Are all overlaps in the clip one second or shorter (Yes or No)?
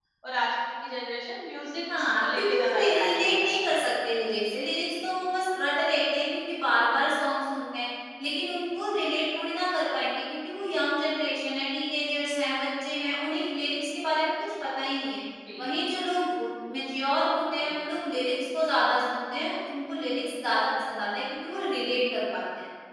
No